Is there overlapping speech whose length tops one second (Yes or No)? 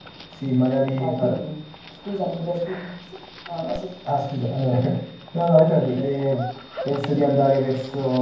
No